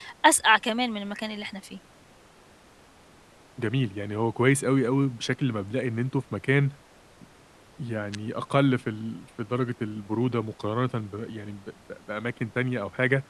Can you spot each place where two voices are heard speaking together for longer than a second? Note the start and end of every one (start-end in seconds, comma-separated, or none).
none